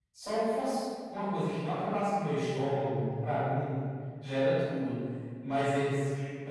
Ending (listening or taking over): listening